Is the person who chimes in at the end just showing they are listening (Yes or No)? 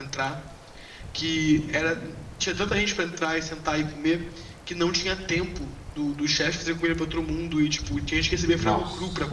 No